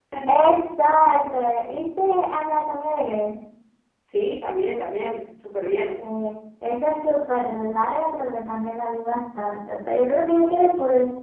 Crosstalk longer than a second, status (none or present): none